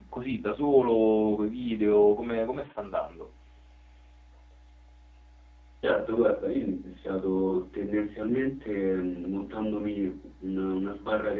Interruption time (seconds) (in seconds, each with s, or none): none